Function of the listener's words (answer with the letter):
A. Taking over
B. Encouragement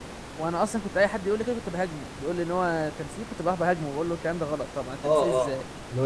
A